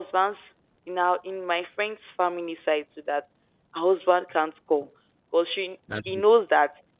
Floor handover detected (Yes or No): No